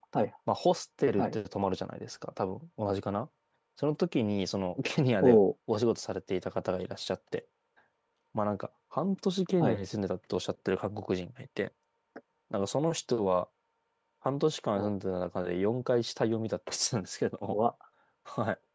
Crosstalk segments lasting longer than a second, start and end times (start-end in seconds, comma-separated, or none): none